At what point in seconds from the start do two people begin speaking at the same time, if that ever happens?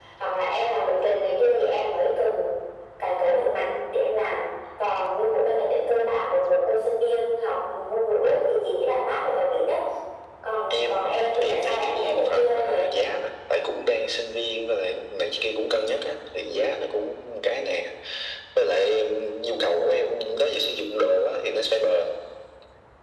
10.7 s

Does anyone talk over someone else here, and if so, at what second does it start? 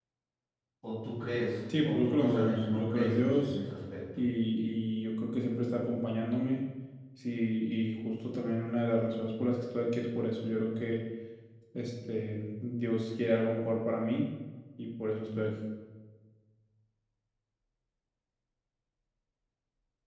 1.7 s

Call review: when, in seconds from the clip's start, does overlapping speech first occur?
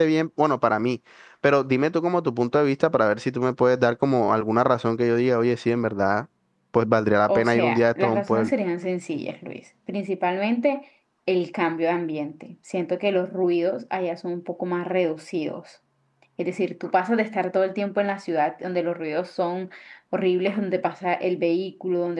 7.3 s

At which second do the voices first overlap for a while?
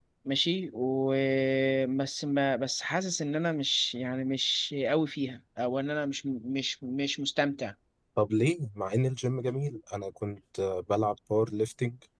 none

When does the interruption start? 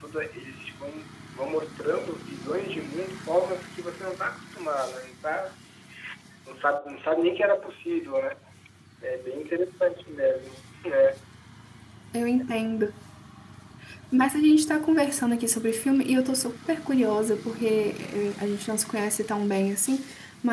none

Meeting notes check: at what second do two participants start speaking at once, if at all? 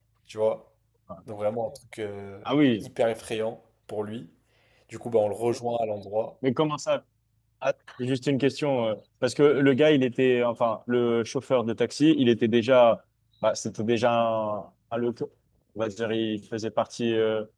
none

